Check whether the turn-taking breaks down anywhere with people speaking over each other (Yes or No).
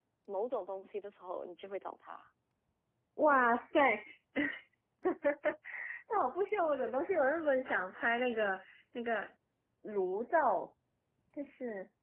No